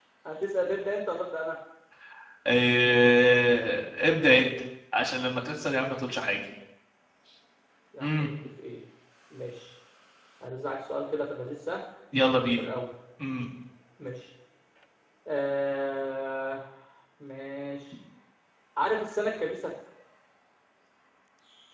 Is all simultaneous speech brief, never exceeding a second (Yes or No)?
Yes